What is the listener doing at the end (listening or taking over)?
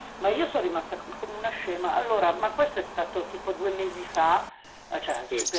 listening